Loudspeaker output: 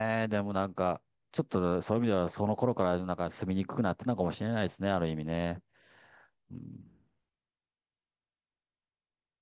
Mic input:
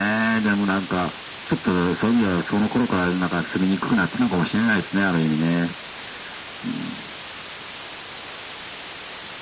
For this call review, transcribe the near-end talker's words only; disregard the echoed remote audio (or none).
none